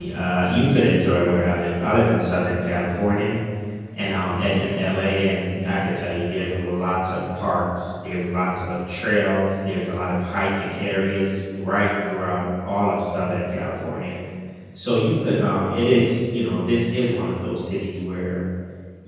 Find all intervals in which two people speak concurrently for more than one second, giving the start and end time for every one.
none

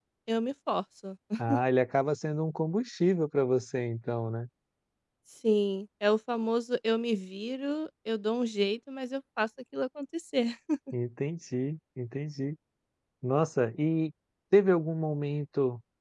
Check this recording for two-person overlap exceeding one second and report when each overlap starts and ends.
none

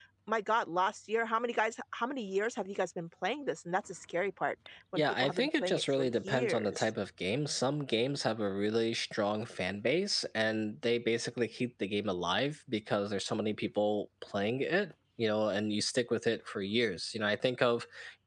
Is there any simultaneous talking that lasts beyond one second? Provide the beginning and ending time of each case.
5.0-6.9

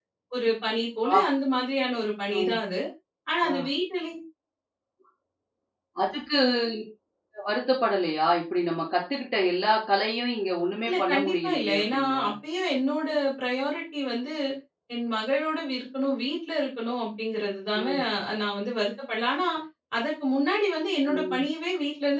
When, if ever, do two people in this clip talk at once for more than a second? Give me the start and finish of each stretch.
10.8-12.2

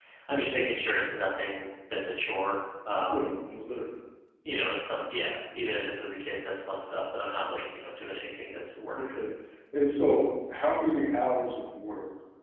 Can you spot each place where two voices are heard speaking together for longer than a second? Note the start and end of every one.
none

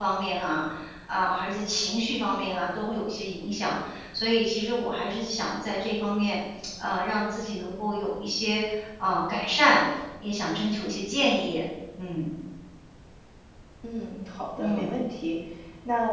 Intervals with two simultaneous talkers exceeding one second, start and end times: none

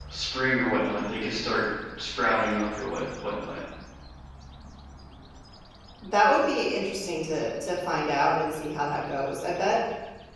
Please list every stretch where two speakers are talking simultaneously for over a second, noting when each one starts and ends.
none

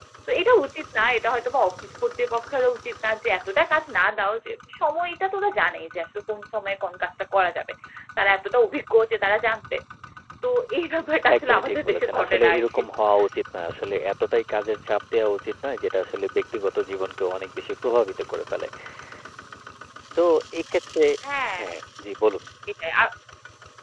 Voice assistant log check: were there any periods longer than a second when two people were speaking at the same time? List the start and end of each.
11.3-12.8

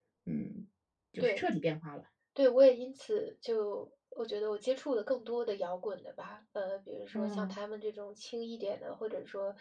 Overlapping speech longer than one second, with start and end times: none

